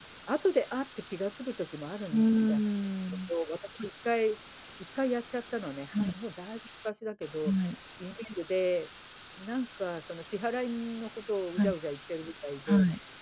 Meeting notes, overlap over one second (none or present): none